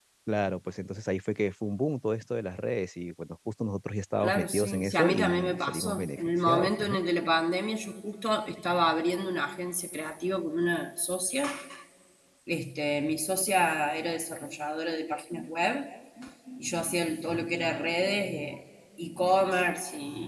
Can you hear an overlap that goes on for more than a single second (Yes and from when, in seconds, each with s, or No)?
Yes, from 4.2 s